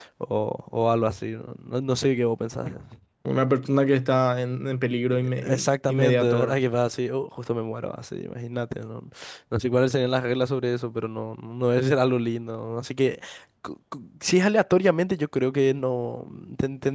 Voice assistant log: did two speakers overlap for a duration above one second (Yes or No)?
Yes